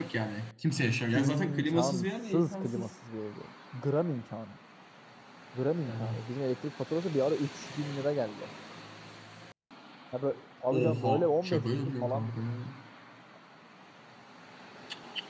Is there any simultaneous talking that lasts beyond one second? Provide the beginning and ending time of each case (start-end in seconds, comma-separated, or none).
1.1-2.9, 10.7-12.6